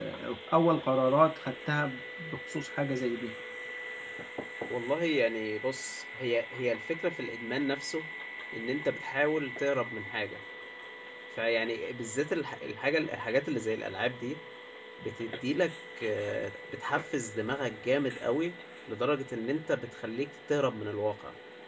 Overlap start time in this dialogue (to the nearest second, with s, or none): none